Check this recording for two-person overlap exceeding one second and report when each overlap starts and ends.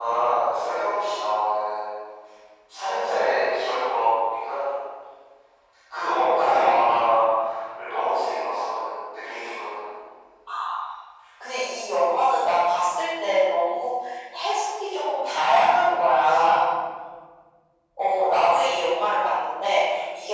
none

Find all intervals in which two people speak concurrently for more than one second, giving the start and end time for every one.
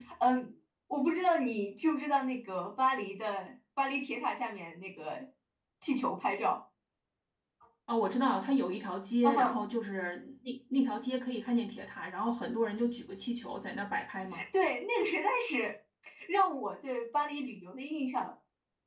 none

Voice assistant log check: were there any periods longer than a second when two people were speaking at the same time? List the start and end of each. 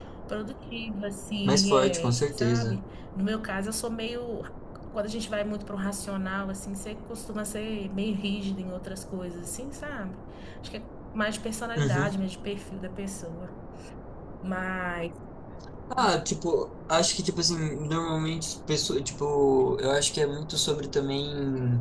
1.4-2.8

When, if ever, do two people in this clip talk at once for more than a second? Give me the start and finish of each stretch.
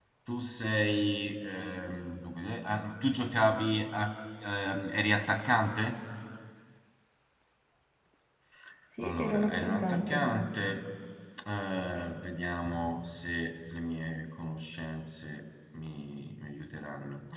9.0-10.3

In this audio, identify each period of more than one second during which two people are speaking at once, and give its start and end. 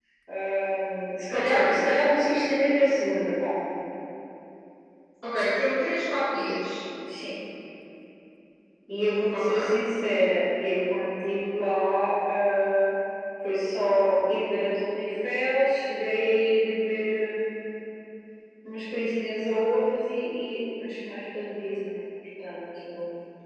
none

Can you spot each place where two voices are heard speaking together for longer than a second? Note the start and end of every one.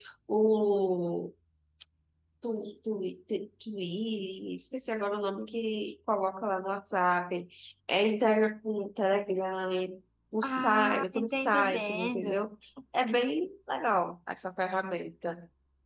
10.4-12.4

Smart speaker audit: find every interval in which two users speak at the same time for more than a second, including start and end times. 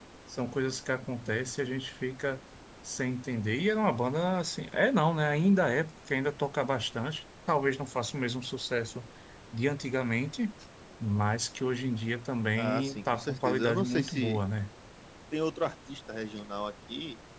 12.6-14.4

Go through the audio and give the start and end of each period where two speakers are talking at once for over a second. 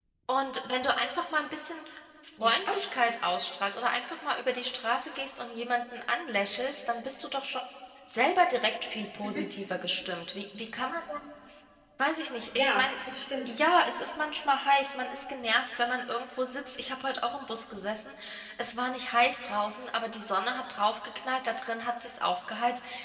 none

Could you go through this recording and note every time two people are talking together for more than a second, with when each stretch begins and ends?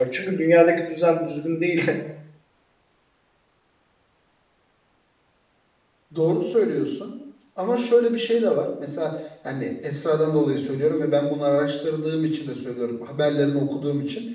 none

